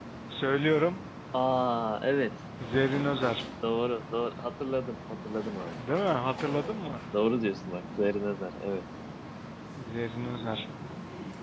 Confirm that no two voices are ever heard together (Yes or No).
Yes